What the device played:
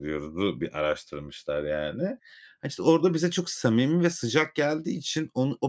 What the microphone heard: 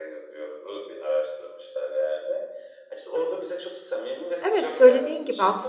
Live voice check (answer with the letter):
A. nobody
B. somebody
B